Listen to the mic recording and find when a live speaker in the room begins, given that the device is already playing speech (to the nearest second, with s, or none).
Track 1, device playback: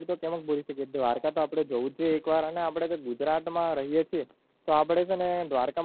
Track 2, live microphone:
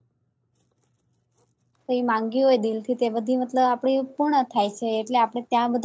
2 s